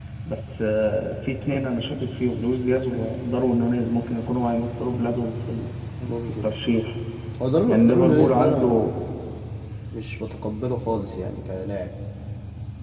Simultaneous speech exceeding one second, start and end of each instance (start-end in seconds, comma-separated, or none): 7.7-8.9